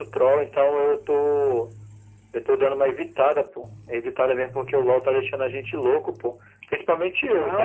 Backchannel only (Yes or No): No